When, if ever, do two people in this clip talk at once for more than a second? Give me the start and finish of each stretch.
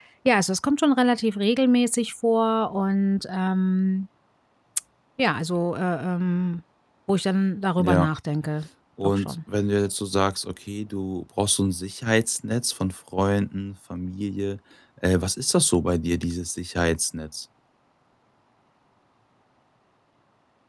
none

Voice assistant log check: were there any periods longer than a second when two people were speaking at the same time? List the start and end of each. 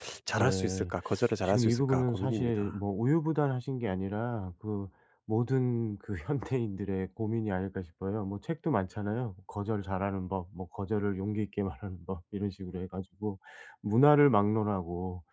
1.4-2.8

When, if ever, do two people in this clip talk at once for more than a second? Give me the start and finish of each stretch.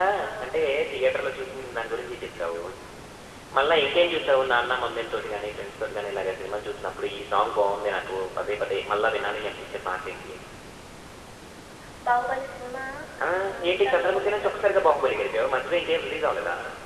13.7-15.2

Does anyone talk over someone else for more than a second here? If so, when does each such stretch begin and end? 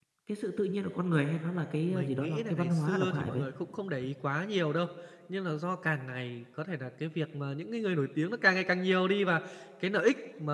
1.9-3.5

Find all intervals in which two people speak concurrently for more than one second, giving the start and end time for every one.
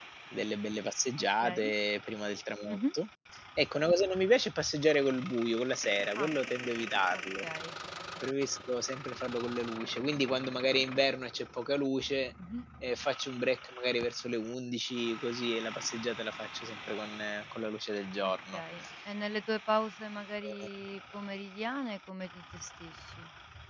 none

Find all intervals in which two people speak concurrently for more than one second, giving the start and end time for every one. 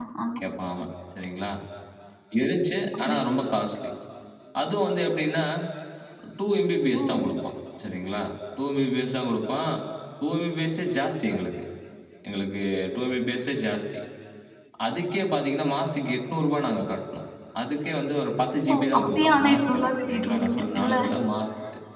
18.7-20.9

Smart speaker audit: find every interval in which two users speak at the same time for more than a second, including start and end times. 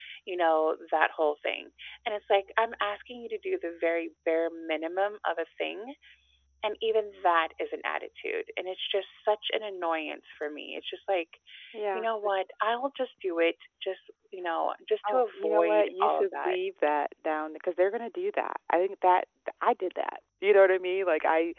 15.1-16.6

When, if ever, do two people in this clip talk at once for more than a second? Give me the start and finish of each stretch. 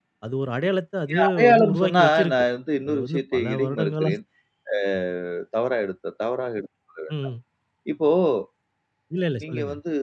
1.1-2.4, 2.8-4.1

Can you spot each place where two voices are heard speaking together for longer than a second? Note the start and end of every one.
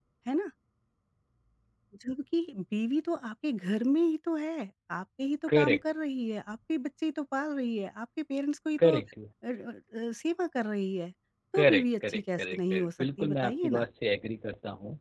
11.5-13.8

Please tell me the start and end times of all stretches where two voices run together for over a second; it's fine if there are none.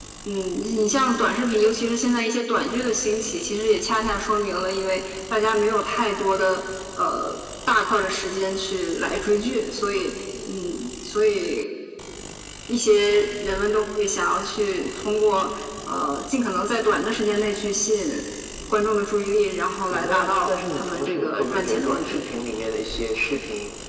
19.9-22.2

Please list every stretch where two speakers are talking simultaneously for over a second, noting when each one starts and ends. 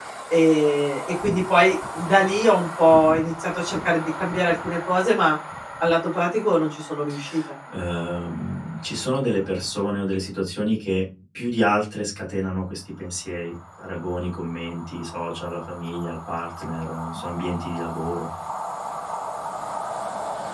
none

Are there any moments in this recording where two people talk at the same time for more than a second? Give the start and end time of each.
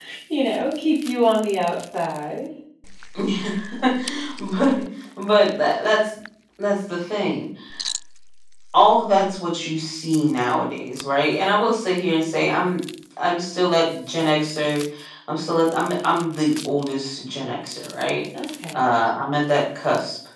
none

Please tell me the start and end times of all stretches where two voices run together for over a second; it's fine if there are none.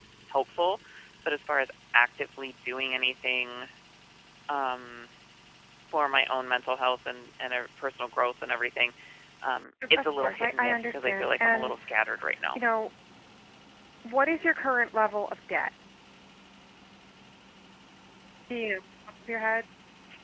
10.0-11.7

